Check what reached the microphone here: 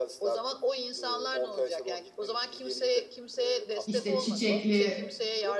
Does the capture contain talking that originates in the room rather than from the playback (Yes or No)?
Yes